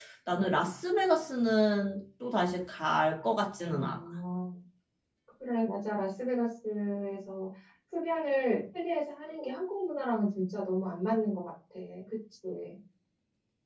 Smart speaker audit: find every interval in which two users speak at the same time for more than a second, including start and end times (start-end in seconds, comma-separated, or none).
none